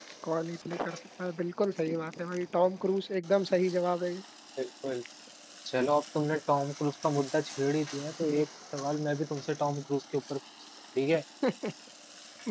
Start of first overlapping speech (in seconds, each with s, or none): none